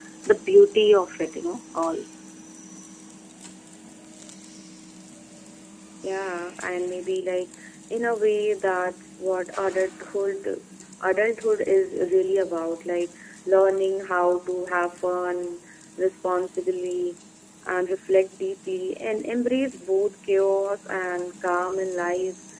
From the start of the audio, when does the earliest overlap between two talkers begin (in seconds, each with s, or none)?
none